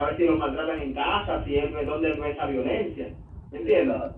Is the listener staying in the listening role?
Yes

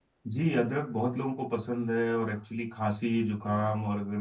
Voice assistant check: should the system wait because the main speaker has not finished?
Yes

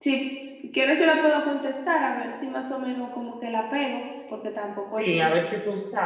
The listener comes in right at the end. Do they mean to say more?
Yes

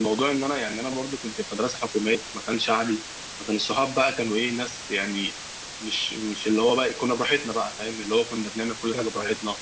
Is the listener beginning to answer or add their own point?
No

